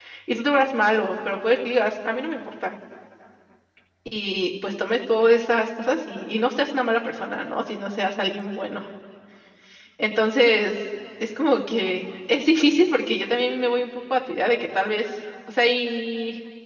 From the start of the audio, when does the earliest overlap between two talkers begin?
none

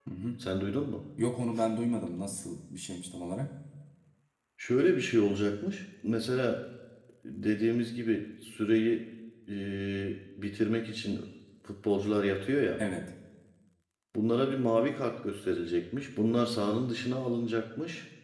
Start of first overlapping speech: none

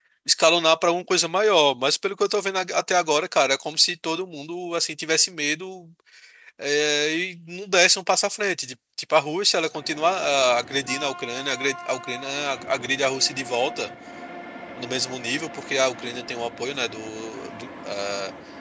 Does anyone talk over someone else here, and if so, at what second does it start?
none

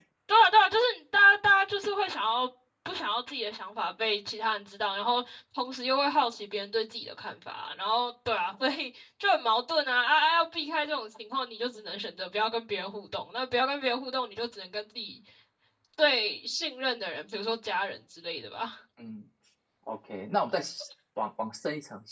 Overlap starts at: none

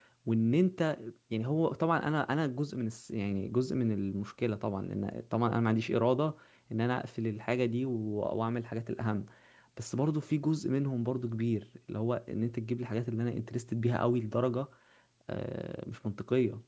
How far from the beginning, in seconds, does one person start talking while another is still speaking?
none

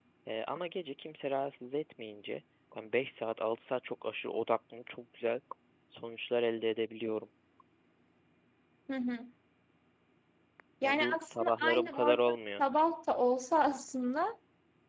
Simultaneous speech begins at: 10.8 s

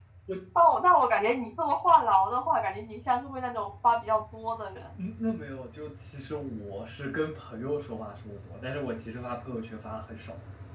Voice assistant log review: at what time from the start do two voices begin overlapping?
none

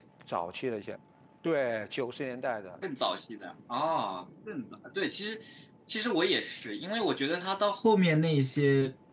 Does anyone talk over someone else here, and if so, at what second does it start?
none

